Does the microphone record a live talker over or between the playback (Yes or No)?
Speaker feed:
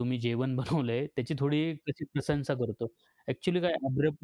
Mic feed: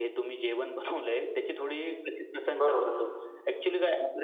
Yes